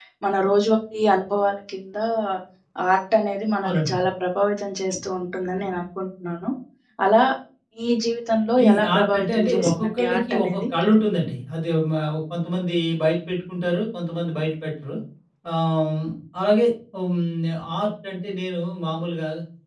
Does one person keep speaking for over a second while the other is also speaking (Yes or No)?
Yes